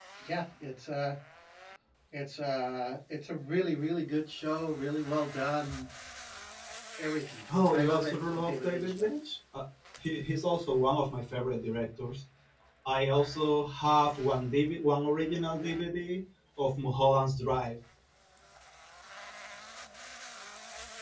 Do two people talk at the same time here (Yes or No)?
Yes